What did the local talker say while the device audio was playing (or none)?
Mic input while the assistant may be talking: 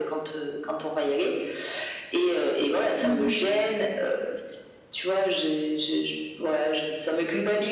Mmh mh.